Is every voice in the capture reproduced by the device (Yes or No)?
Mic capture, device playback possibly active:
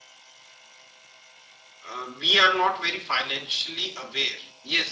No